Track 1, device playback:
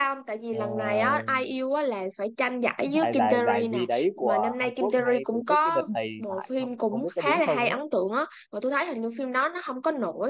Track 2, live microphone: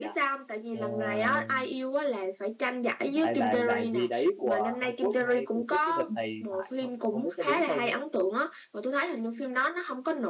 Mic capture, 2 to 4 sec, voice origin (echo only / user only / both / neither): echo only